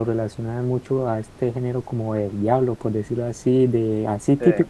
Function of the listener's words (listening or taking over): listening